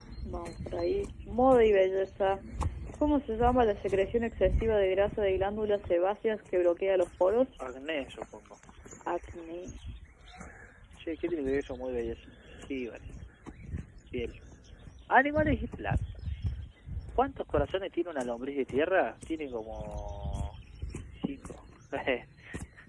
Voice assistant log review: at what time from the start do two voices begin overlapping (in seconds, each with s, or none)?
none